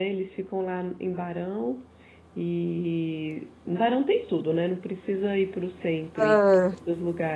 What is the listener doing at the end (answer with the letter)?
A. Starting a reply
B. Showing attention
B